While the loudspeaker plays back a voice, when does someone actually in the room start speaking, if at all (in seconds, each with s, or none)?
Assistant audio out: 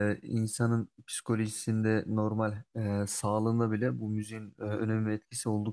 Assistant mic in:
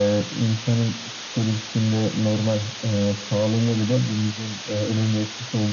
none